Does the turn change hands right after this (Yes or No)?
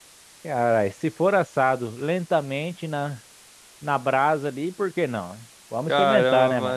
Yes